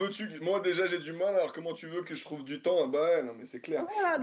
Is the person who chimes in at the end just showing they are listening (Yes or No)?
No